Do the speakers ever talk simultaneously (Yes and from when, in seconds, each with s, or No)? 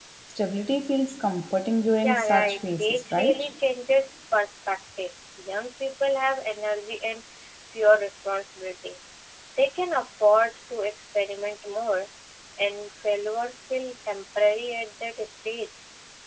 Yes, from 2.0 s